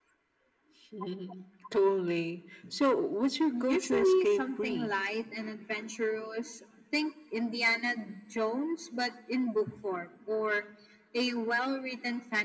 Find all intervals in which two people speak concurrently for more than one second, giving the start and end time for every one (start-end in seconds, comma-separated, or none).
3.5-4.9